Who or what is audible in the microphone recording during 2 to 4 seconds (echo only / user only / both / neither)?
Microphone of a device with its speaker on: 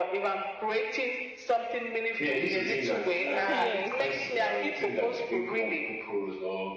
both